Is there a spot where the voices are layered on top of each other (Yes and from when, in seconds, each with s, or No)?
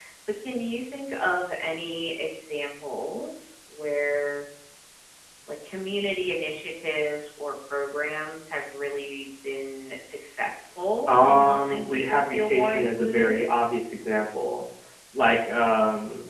Yes, from 11.1 s